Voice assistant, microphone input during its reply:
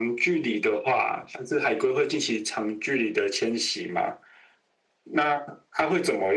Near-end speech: none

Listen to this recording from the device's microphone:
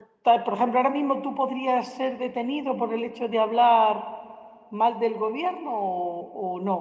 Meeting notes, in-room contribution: present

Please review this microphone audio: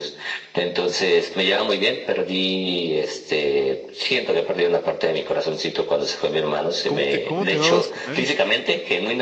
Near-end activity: present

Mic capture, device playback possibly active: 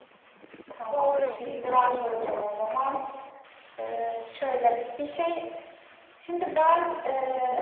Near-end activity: present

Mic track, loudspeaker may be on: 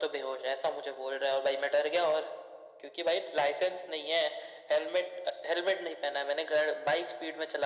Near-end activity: none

